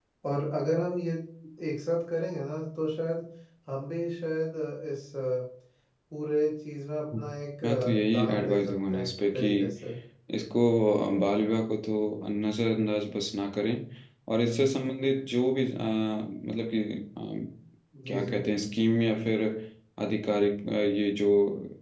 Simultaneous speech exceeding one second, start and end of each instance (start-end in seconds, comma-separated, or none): 7.6-9.5